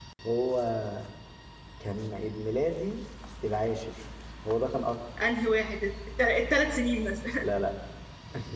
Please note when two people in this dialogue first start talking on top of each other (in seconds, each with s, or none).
none